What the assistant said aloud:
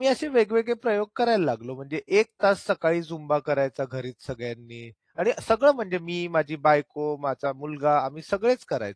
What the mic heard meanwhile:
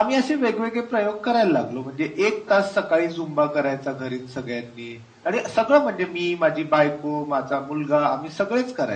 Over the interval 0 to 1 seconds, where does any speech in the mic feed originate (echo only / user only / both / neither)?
echo only